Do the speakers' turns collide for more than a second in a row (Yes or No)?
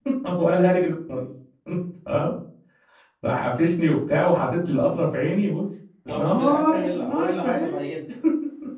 Yes